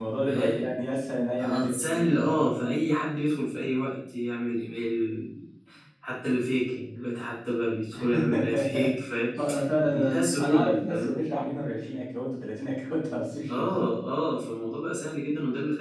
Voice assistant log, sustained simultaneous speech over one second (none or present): present